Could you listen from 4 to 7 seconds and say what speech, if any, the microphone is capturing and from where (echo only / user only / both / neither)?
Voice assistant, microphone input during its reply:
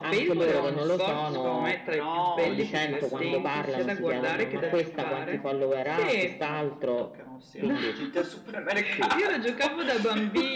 both